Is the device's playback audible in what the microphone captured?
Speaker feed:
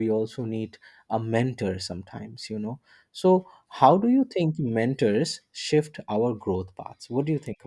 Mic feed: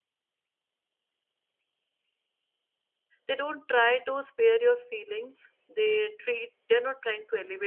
No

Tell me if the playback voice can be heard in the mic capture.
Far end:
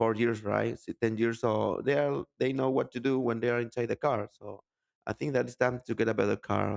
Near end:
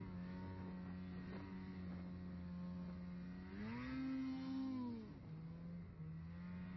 No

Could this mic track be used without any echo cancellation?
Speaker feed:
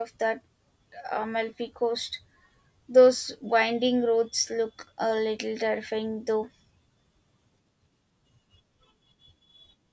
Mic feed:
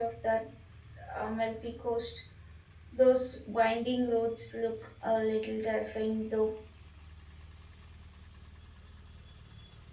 No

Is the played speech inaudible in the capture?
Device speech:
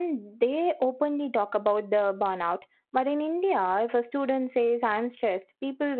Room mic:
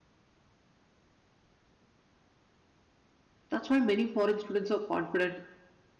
Yes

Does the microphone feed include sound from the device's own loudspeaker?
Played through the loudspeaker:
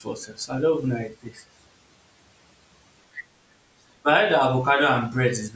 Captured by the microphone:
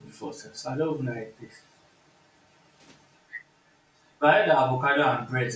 Yes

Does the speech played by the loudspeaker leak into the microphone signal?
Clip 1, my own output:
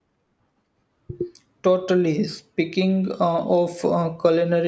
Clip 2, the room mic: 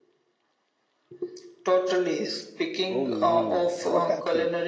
Yes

